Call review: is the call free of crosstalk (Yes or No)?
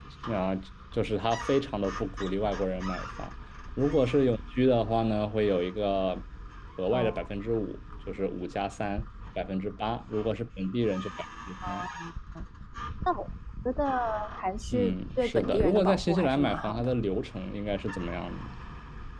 No